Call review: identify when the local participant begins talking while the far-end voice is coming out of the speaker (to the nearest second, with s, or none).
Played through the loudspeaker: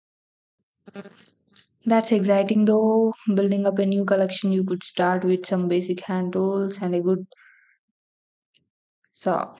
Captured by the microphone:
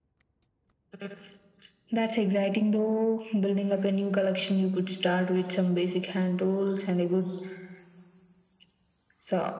none